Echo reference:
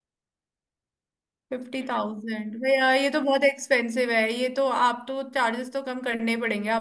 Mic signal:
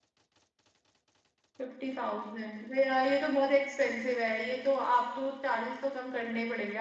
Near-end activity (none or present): none